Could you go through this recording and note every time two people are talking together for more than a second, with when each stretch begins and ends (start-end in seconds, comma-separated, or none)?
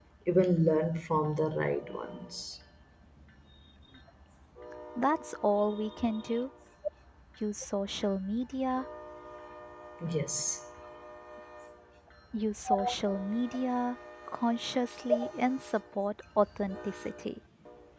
none